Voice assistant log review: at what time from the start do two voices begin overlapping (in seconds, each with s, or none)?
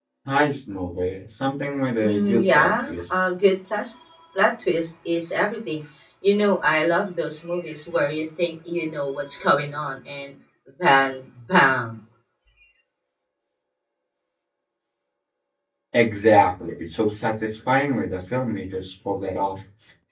2.0 s